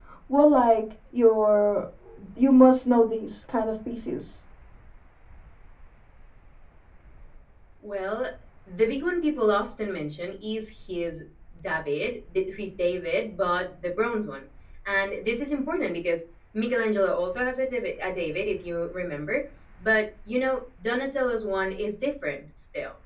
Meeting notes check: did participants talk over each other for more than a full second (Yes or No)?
No